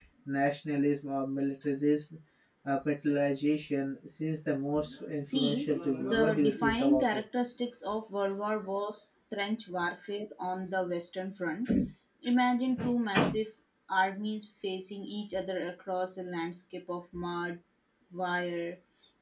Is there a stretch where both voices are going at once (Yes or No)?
Yes